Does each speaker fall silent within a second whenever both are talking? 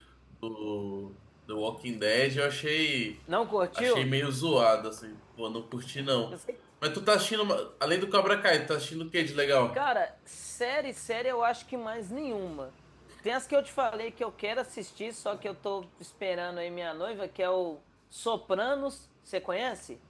Yes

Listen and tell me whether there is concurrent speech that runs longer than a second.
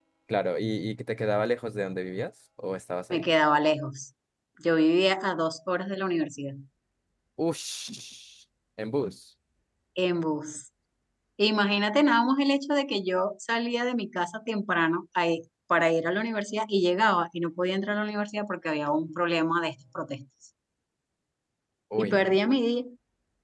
No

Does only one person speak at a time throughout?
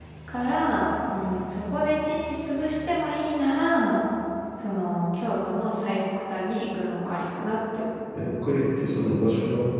Yes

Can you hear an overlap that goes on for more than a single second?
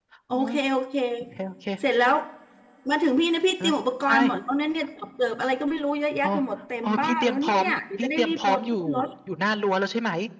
Yes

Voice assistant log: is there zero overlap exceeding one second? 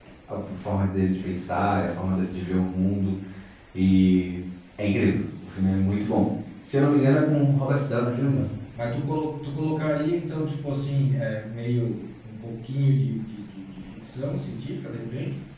Yes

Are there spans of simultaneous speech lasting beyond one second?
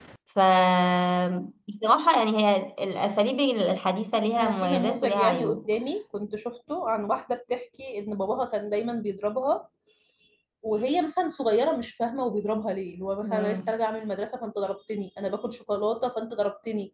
Yes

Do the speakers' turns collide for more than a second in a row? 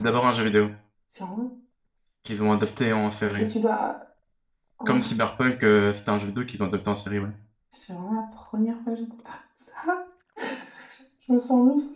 No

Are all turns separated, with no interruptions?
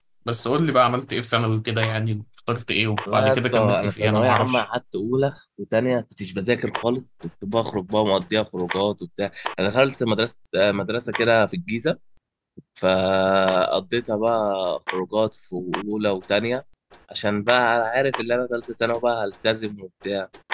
No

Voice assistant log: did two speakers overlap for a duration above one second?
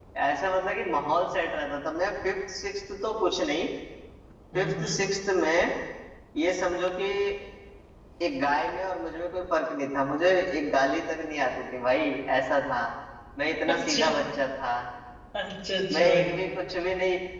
No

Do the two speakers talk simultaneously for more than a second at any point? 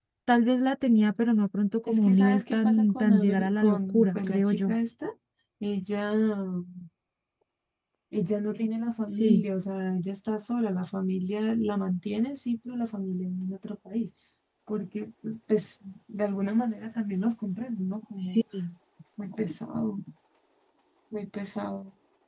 Yes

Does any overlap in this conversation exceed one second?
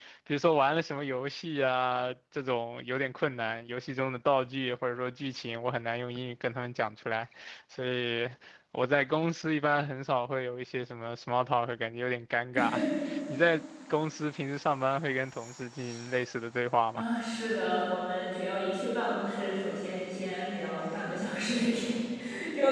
No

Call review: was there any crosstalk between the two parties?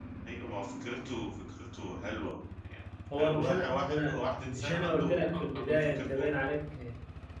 Yes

